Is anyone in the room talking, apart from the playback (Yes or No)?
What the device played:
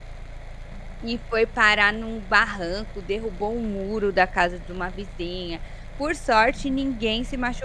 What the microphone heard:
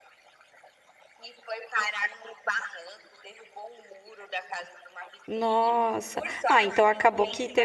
Yes